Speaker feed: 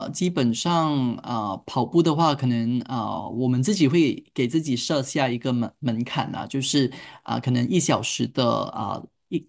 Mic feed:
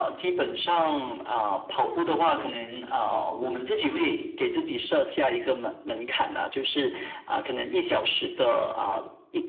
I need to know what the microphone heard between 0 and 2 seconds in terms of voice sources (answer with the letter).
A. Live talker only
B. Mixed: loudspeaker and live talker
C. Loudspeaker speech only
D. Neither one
C